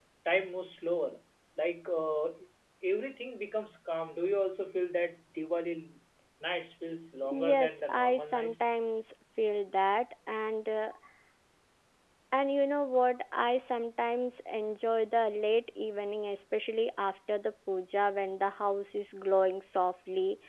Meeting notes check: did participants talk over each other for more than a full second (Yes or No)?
Yes